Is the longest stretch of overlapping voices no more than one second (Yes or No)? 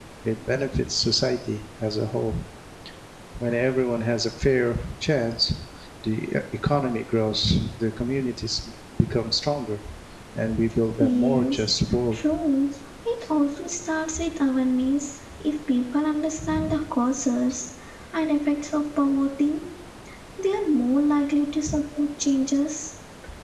No